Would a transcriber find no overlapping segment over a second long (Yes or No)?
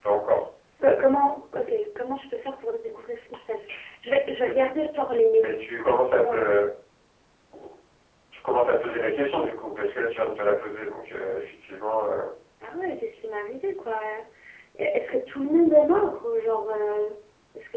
Yes